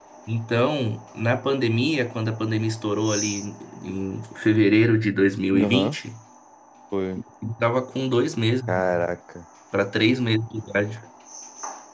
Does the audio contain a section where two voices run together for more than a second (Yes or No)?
No